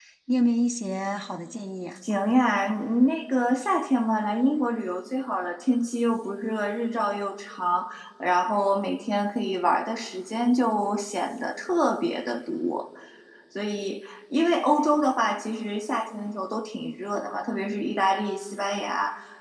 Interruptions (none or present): none